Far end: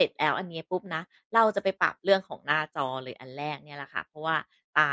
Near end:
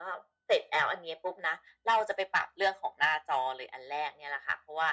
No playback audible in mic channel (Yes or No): No